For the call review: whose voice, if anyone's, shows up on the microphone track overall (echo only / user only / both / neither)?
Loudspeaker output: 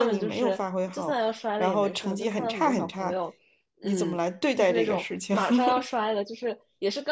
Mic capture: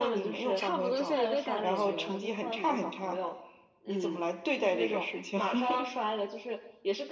both